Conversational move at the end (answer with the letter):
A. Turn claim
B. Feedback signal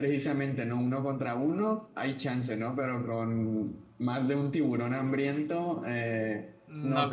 A